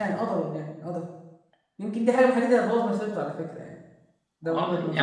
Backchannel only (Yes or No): No